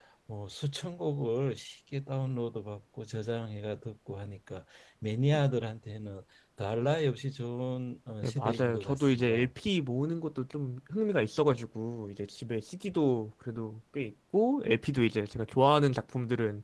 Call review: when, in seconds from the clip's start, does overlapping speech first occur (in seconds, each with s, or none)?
8.2 s